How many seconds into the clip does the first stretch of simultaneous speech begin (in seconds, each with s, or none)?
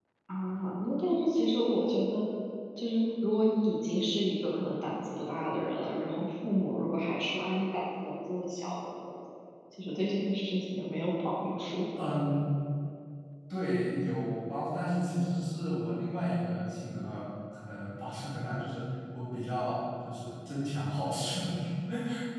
none